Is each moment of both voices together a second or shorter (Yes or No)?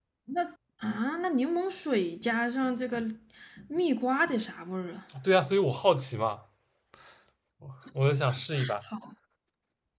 Yes